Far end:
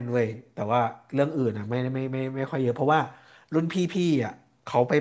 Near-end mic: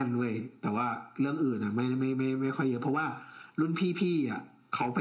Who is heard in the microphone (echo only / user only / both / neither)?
echo only